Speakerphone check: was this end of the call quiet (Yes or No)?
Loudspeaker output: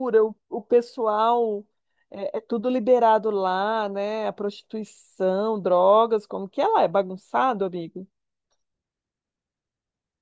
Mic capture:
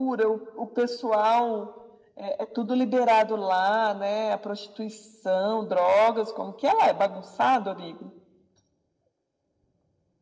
Yes